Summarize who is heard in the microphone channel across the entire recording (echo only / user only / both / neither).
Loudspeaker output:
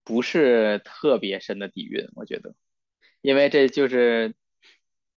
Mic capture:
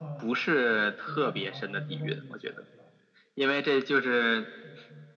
both